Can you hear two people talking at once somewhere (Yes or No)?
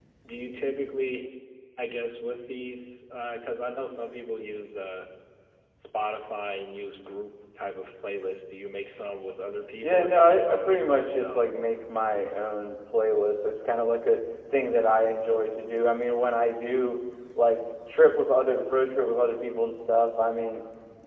Yes